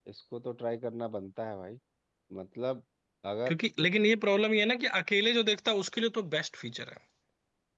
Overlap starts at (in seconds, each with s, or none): none